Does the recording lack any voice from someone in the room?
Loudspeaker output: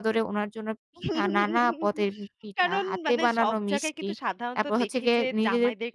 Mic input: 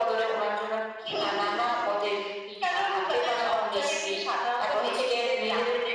Yes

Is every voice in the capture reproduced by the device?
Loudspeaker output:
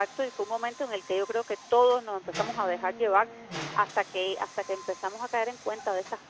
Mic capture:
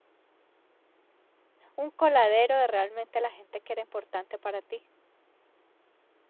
No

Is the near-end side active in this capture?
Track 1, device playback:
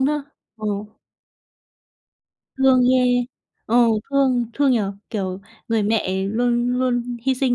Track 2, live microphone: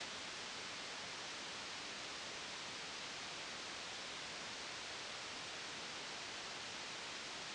No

